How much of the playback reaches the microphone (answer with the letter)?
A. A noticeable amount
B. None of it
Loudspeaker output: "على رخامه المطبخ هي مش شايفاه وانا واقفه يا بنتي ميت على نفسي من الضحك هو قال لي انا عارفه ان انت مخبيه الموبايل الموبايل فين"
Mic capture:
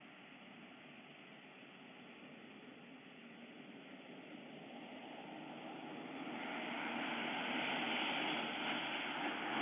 B